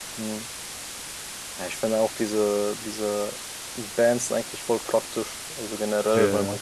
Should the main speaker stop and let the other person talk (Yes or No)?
No